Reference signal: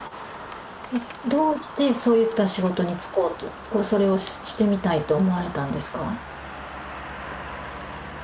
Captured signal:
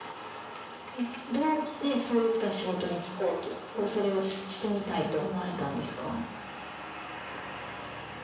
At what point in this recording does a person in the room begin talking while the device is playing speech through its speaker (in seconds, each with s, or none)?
none